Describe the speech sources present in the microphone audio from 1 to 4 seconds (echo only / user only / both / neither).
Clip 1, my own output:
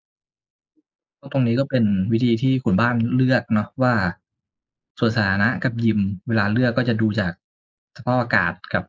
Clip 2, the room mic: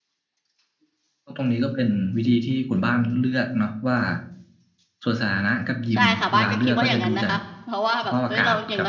echo only